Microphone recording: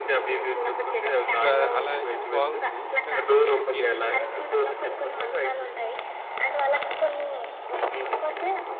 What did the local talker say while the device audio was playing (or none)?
ఇప్పుడు ఆహ్, అలా ఇది బాగుంది. ఇంకా కొన్ని కొన్ని గేమ్స్ ఉంటాయి గదా!